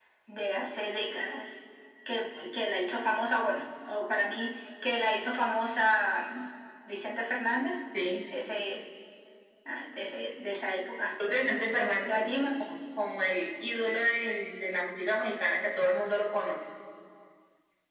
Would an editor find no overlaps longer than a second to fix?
Yes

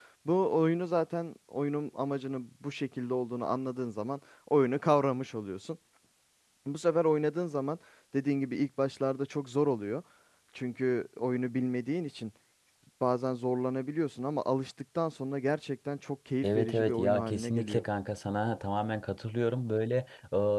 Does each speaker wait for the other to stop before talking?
No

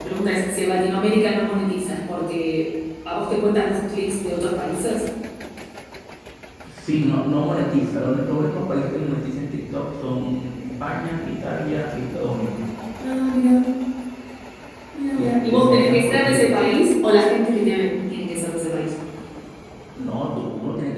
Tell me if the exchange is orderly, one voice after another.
No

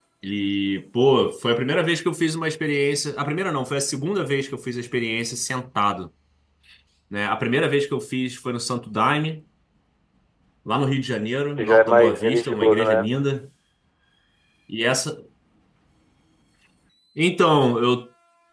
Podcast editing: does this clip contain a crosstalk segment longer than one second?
Yes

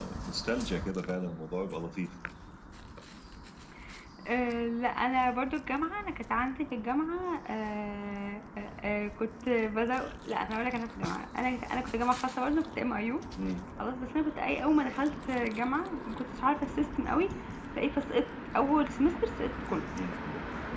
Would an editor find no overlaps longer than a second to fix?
Yes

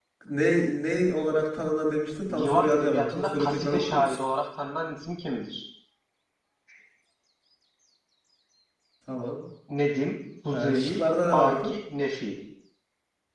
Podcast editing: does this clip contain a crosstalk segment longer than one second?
Yes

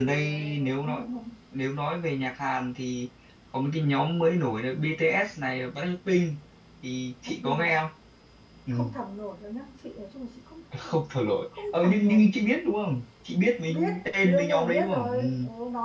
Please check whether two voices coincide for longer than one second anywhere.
Yes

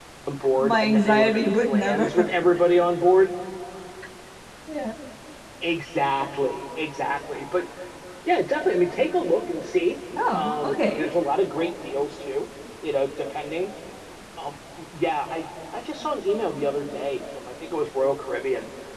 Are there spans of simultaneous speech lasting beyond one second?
Yes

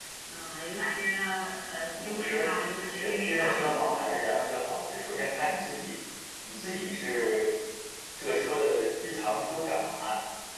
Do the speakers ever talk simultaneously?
Yes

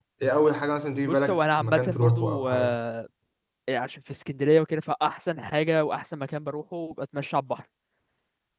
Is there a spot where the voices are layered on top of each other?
Yes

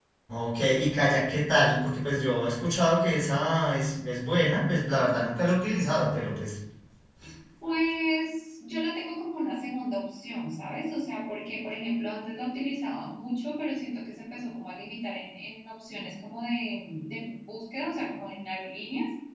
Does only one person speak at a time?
Yes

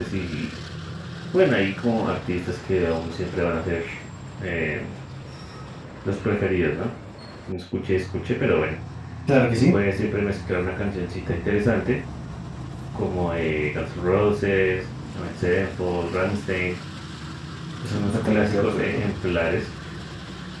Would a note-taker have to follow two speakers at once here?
Yes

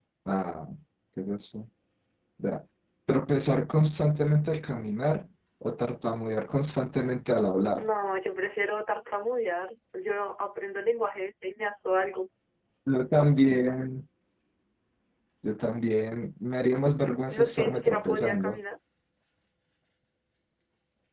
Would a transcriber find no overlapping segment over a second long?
No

